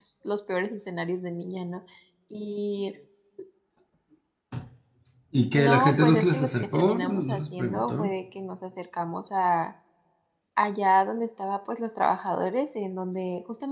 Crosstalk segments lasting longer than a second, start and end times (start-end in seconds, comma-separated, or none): 5.5-8.1